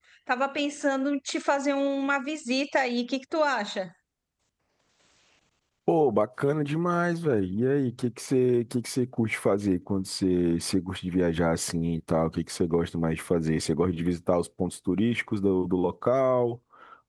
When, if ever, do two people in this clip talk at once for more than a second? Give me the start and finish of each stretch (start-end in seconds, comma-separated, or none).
none